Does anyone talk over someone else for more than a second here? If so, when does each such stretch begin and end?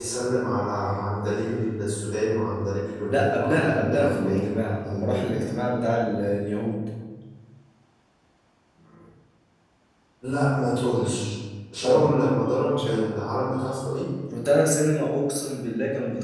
3.1-5.5

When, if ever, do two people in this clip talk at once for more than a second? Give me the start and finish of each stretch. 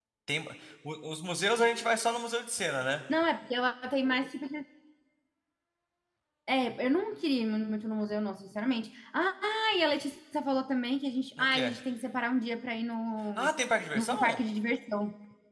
none

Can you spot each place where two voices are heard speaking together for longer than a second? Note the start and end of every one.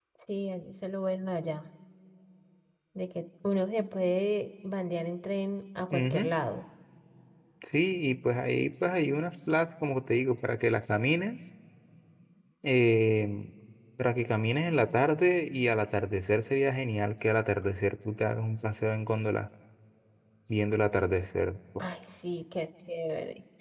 none

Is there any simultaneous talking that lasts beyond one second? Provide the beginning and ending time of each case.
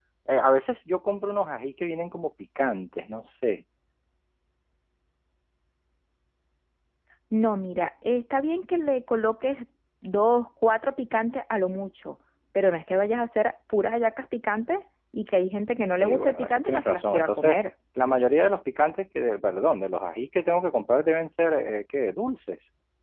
16.0-17.6

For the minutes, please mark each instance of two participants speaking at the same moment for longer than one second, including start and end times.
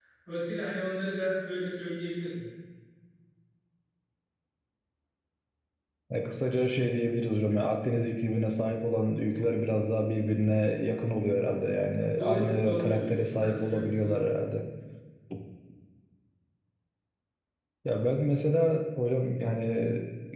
12.2-14.2

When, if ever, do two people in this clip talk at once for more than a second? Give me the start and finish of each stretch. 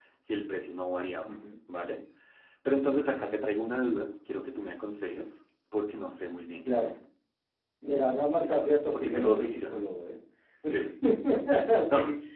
8.4-9.7

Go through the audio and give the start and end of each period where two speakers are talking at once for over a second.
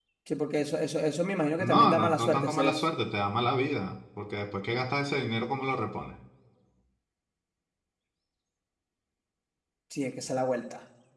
1.6-2.8

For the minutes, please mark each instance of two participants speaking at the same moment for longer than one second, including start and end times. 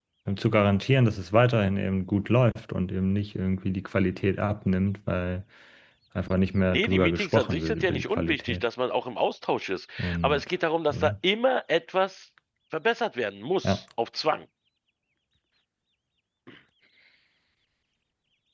6.7-8.6

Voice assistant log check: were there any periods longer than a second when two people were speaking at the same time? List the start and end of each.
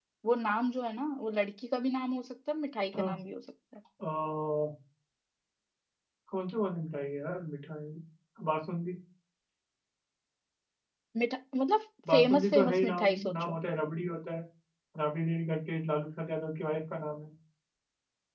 12.1-13.6

